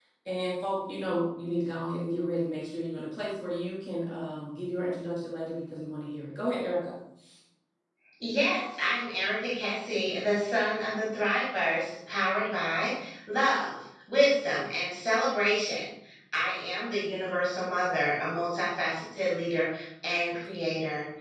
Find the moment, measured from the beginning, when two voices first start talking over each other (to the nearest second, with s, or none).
none